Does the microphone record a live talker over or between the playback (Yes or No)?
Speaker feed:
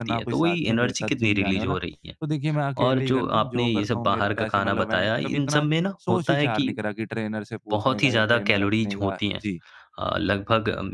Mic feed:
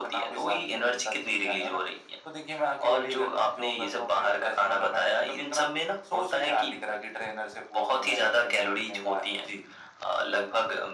No